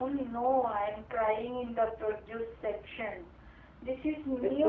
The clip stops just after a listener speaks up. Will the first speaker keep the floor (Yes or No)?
No